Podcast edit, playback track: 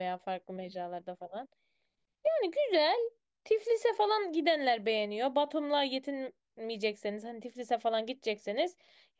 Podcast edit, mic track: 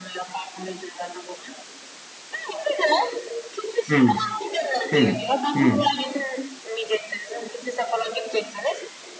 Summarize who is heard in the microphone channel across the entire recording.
both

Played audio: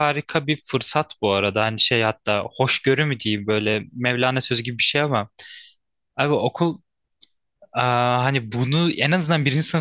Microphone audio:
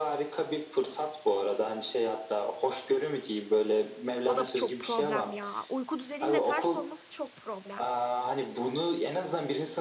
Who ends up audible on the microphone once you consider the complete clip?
both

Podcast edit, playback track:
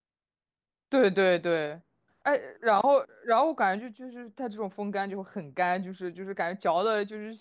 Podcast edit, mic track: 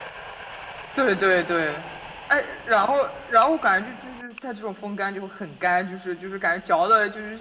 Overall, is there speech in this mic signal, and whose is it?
echo only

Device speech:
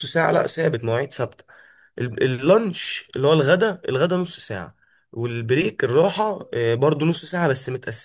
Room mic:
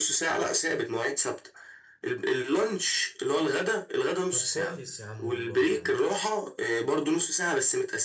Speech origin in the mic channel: both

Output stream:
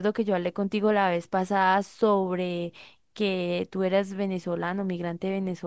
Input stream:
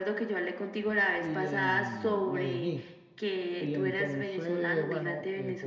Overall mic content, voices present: both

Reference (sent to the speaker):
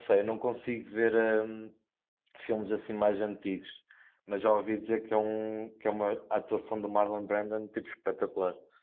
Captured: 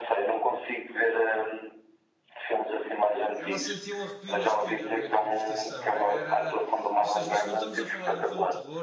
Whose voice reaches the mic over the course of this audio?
both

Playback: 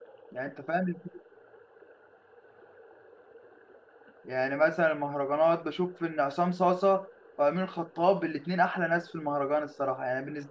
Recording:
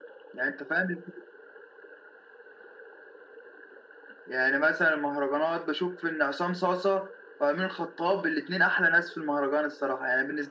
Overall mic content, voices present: echo only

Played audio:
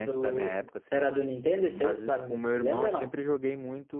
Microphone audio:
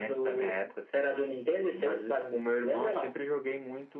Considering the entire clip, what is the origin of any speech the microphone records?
echo only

